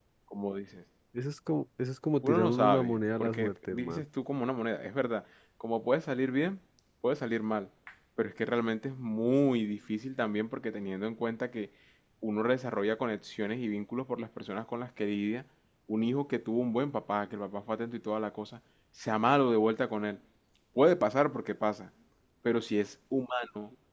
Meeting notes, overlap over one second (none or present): present